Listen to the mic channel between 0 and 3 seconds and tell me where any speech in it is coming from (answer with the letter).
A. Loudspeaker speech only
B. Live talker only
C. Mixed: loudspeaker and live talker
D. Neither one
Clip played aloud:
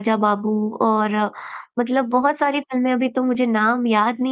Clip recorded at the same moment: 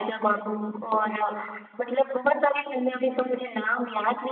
A